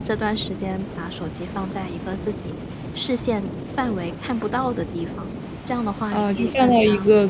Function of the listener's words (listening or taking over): taking over